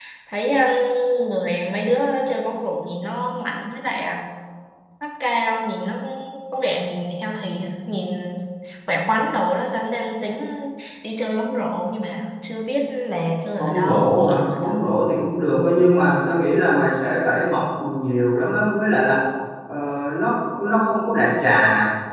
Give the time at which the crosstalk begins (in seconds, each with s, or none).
13.6 s